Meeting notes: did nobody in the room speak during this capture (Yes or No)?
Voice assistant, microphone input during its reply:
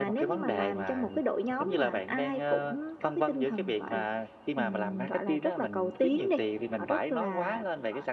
Yes